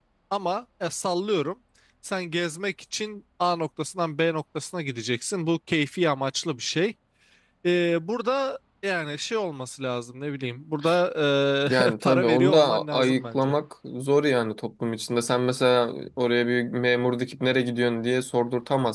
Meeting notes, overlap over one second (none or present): present